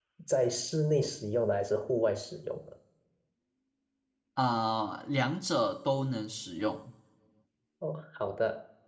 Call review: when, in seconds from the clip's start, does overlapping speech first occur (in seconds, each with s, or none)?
none